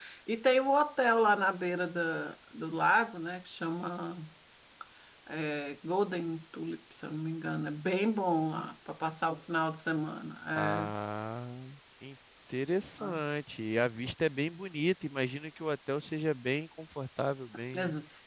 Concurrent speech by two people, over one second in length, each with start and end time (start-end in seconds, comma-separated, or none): none